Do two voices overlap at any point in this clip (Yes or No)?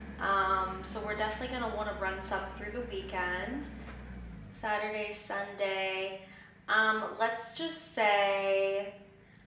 No